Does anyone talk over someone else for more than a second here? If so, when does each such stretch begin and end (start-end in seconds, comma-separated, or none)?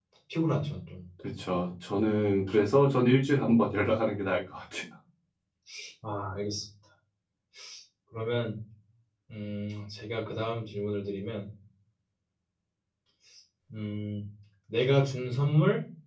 none